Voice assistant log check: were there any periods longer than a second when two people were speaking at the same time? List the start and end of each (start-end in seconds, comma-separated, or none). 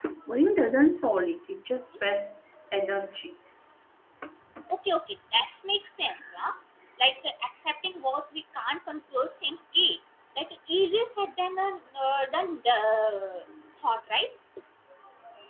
none